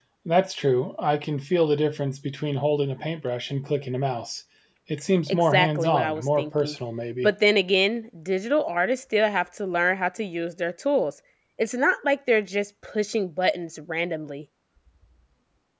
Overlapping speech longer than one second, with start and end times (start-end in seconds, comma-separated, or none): 5.3-6.7